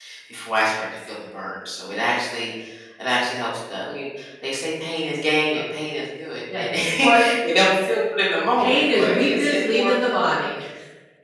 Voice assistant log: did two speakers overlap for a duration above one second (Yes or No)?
Yes